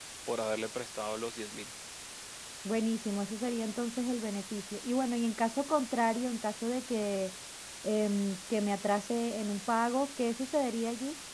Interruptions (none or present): none